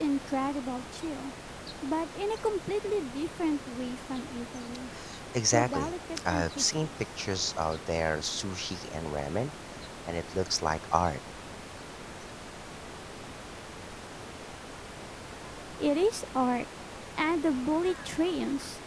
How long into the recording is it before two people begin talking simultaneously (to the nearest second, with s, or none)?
5 s